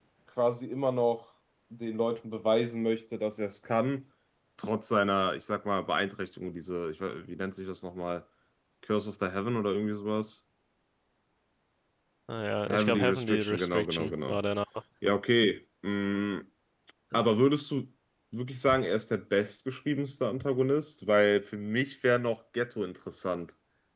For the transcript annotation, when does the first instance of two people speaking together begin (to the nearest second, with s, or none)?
13 s